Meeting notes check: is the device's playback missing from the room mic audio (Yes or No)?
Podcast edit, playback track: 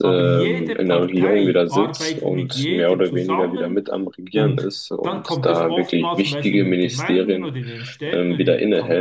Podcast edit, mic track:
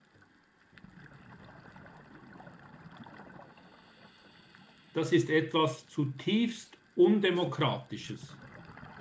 Yes